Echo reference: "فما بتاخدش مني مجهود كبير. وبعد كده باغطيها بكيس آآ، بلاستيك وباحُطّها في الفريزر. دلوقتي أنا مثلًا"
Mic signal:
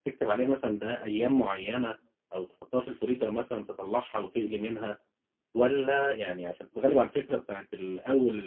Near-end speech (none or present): present